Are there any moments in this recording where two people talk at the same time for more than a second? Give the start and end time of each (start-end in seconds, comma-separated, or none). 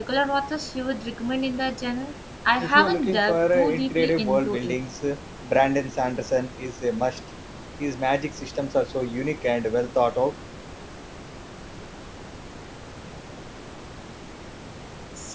2.6-4.8